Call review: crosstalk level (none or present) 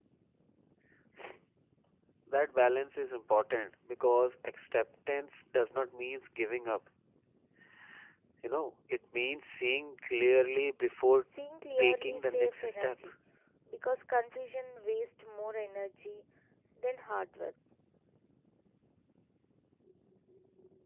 present